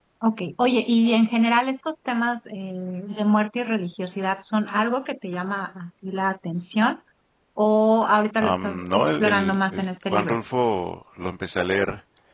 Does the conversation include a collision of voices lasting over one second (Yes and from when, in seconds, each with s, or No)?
Yes, from 8.4 s